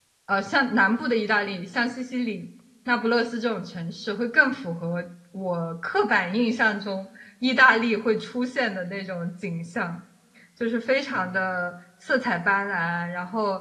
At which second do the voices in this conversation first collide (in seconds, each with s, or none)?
none